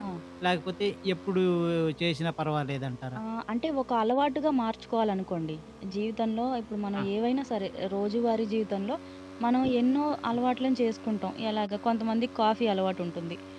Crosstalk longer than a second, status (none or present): none